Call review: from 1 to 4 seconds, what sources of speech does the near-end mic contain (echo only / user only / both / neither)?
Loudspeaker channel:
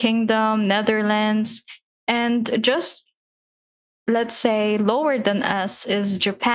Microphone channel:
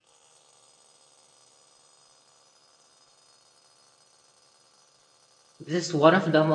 neither